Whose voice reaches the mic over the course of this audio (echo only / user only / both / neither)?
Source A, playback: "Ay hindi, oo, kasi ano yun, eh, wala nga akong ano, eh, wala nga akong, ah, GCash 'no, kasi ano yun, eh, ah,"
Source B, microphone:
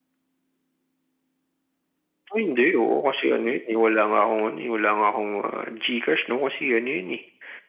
echo only